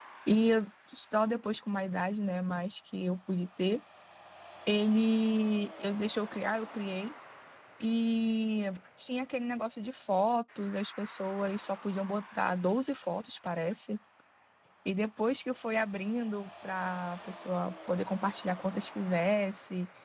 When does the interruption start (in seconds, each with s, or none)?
none